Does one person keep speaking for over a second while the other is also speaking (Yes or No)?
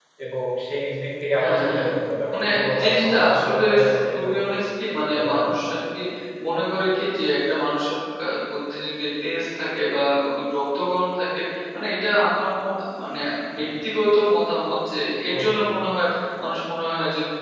Yes